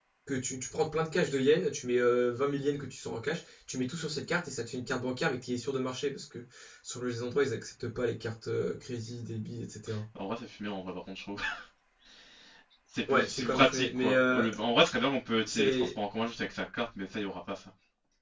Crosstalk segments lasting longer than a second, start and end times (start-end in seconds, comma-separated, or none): 13.1-14.4